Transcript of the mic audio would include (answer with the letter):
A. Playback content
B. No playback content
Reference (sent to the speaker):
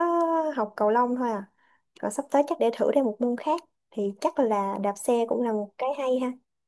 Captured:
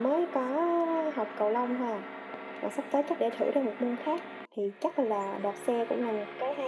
A